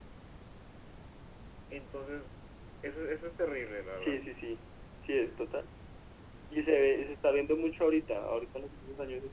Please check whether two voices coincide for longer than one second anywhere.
No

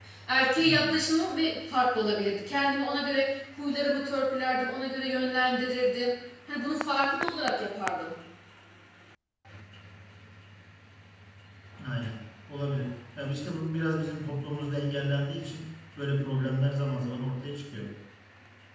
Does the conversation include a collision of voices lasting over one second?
No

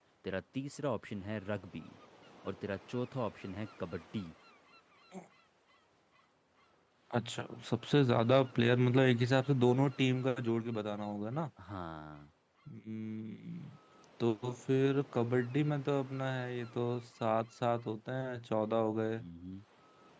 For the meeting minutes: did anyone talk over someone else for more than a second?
No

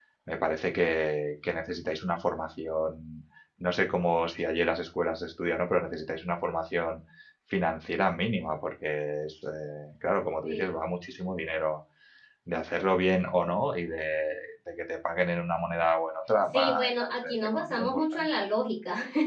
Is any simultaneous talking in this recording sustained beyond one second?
Yes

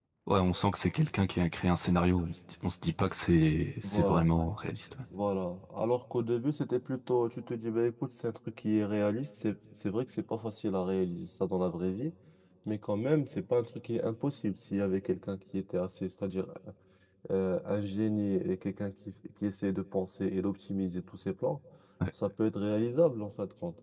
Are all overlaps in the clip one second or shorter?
Yes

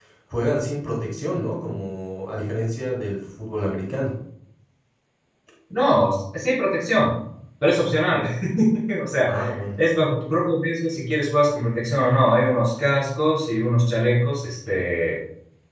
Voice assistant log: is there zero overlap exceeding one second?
Yes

